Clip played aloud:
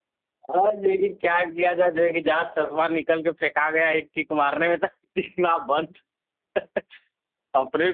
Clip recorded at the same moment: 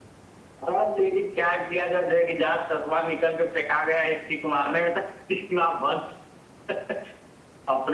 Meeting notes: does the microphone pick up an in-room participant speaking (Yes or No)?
No